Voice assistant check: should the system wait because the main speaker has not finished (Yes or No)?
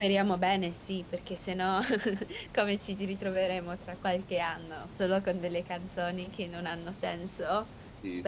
No